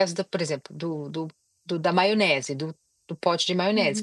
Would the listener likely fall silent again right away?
No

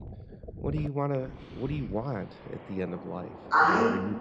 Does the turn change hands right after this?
No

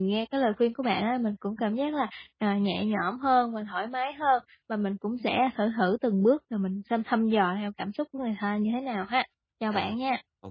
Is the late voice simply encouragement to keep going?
No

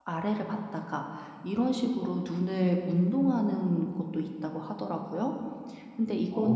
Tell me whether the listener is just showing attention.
Yes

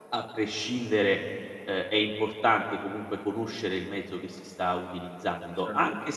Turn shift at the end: No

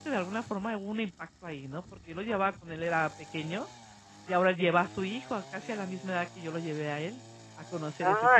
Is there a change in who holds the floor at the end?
Yes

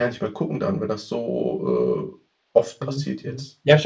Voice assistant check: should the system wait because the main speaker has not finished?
No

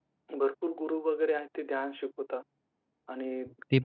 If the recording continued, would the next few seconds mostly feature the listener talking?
No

